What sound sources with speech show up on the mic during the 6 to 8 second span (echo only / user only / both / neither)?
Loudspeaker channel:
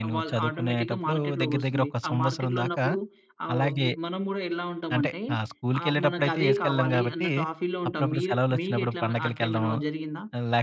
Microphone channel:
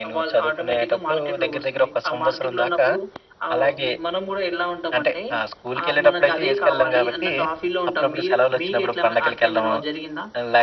echo only